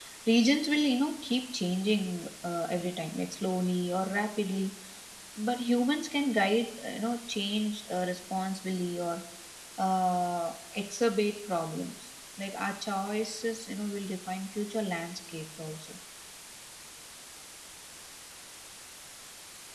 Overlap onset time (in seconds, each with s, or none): none